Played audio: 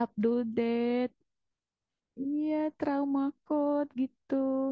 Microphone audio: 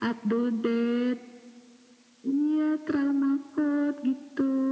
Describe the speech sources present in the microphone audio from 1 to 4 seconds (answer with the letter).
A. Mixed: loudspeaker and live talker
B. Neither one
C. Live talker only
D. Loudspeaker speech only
D